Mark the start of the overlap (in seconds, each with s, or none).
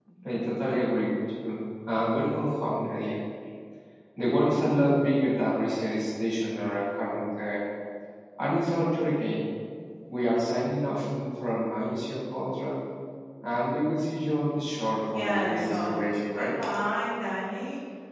15.1 s